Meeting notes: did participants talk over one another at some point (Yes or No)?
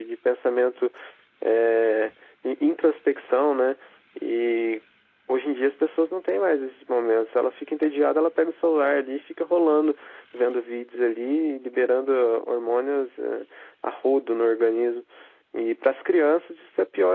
No